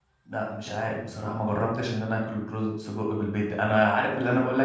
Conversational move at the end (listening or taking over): listening